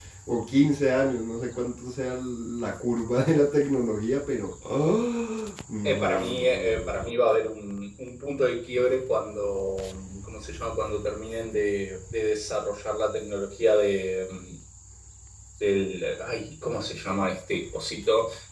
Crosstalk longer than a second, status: present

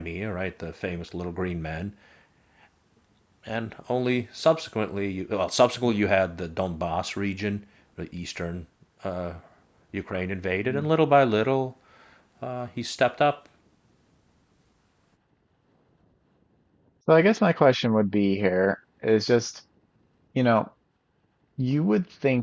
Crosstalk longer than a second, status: none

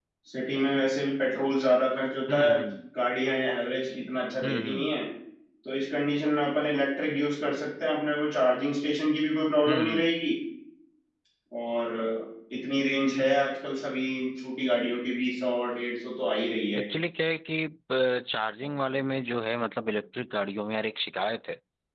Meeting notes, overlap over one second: none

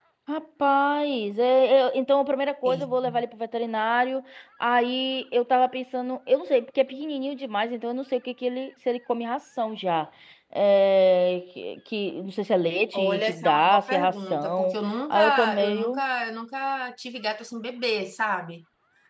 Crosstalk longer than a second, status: present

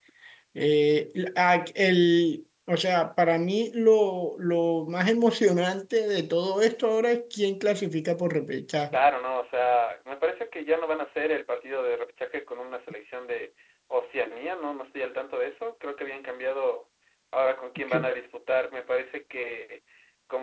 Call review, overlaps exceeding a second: none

